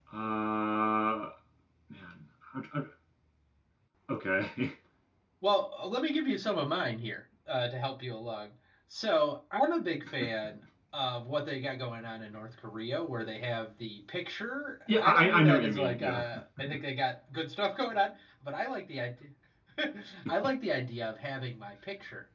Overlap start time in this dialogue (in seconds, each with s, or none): 14.9 s